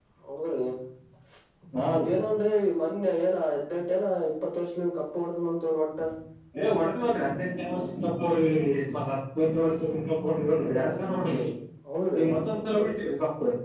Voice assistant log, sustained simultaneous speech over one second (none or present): none